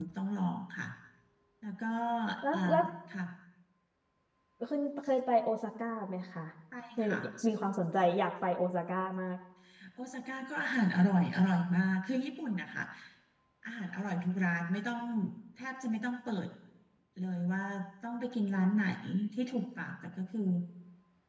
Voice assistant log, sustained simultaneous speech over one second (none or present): none